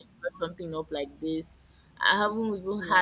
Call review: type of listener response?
listening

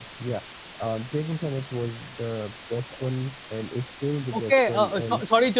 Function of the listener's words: taking over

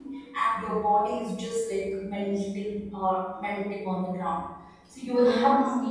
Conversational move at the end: listening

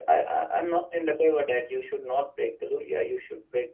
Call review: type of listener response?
listening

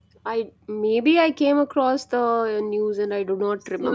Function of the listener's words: taking over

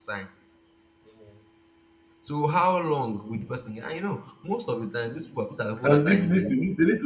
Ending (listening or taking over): taking over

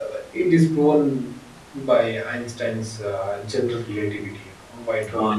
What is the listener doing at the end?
taking over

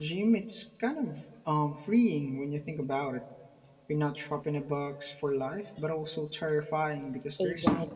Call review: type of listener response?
taking over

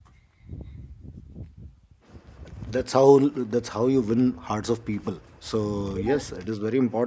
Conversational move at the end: listening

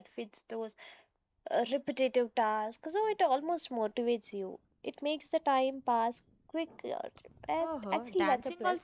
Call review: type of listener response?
taking over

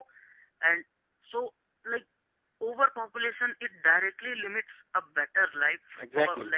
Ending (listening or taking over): taking over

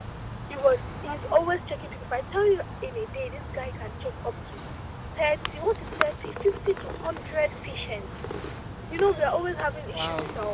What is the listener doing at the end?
listening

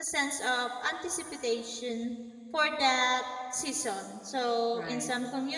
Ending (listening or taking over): listening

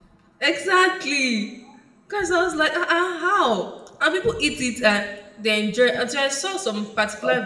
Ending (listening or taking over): taking over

